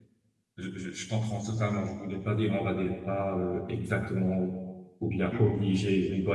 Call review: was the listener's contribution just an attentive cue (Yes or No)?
Yes